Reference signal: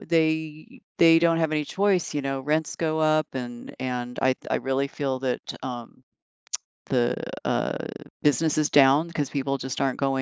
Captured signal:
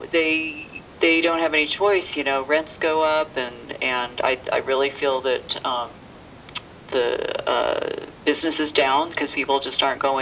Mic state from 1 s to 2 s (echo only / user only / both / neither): echo only